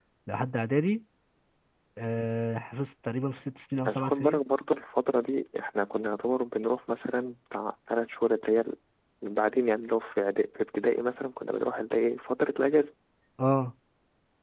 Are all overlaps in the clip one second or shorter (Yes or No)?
Yes